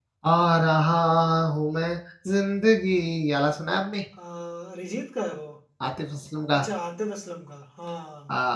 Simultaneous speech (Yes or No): No